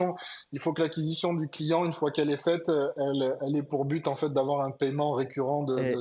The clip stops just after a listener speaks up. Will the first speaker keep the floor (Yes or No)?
No